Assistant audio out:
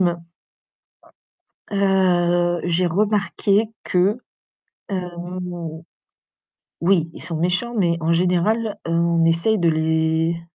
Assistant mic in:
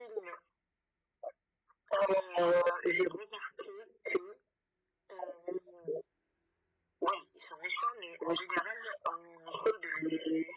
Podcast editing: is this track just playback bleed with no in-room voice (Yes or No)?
Yes